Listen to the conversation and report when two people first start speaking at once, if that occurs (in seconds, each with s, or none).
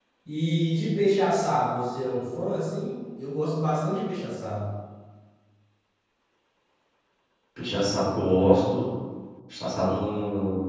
none